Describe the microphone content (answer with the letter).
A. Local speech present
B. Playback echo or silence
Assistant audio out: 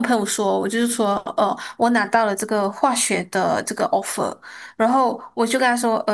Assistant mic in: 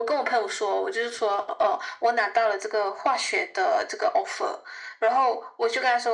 B